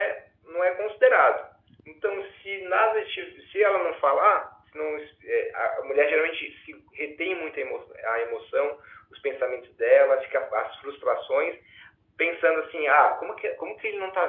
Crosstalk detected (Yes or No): No